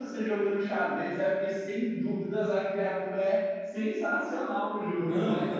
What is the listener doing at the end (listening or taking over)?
taking over